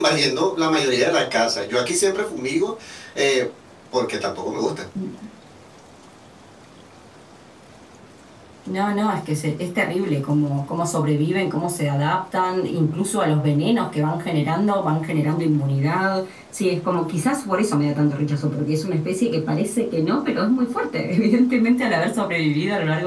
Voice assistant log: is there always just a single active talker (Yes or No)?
Yes